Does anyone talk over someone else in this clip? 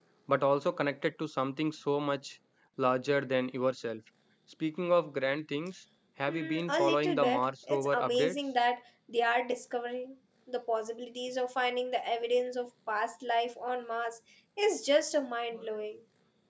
Yes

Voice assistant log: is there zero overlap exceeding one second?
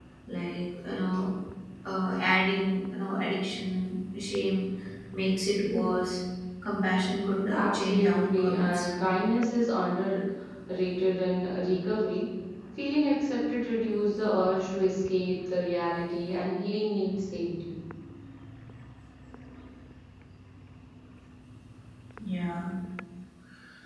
No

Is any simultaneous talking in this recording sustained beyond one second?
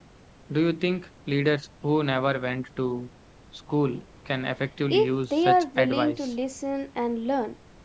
Yes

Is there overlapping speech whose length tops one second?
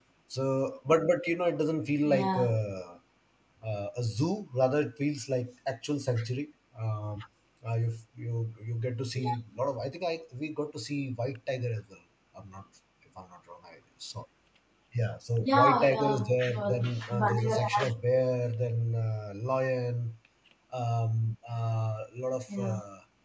Yes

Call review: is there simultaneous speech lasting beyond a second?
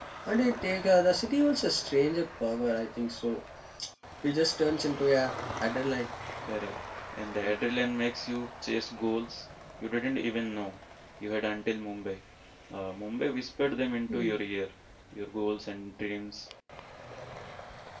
No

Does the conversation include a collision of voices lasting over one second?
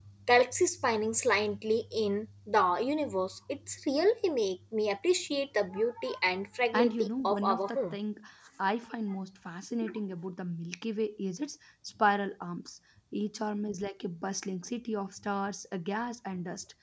Yes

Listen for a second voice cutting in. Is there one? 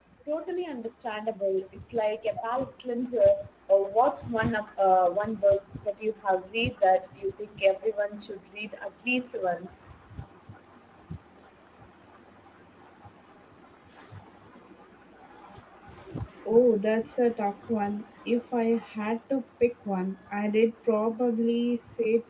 No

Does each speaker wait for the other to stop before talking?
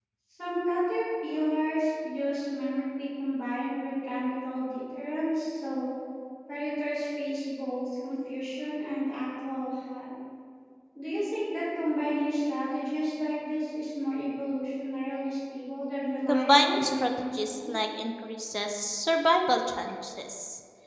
No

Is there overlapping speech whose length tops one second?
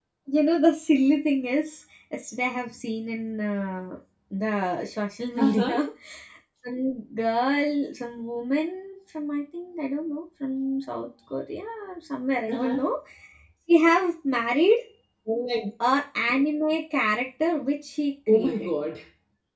No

